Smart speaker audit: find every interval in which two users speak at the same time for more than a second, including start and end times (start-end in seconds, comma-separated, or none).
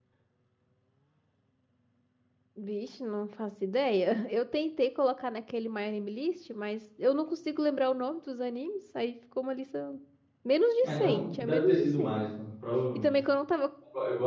10.8-12.2